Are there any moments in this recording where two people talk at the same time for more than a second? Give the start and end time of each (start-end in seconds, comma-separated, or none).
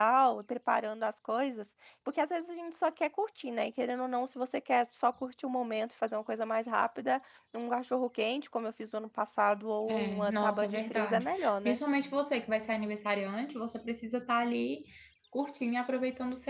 9.9-11.8